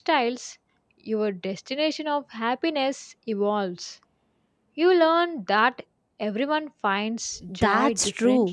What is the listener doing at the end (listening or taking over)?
taking over